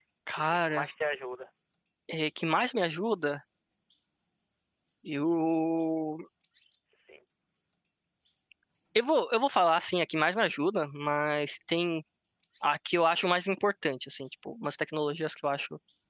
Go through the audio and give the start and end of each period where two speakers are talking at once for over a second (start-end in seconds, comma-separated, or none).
none